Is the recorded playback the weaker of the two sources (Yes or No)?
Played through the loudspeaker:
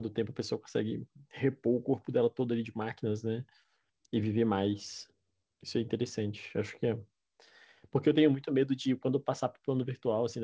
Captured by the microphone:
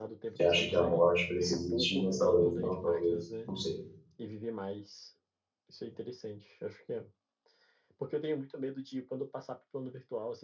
Yes